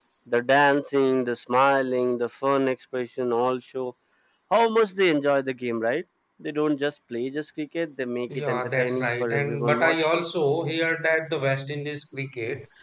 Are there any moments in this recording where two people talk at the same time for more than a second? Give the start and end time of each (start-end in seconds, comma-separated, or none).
8.3-10.2